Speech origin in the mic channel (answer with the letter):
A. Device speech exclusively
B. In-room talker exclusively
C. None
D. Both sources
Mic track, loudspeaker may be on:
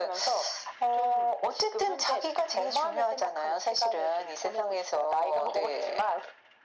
A